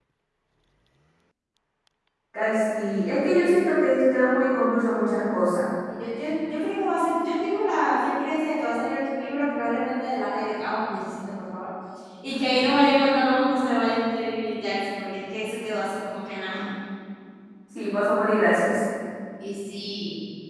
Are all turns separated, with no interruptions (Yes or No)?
Yes